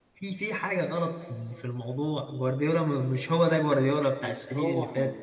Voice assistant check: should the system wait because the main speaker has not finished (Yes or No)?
Yes